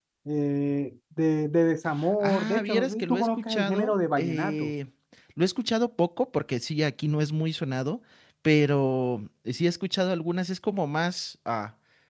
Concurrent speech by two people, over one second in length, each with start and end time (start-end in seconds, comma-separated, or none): 2.2-4.7